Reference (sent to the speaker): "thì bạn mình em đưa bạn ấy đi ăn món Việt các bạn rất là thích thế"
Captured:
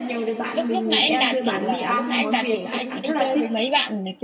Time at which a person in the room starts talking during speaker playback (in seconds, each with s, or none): 0.5 s